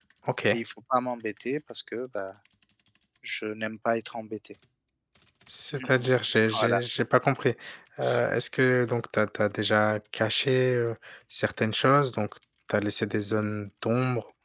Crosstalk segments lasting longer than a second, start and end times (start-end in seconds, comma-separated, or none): none